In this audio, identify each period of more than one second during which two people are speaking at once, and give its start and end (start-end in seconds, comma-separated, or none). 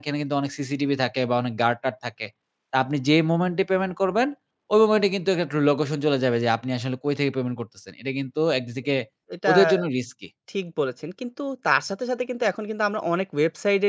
none